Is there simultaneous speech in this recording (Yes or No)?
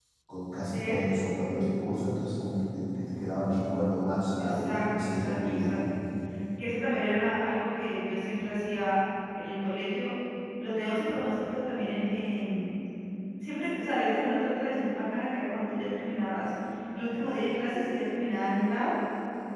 Yes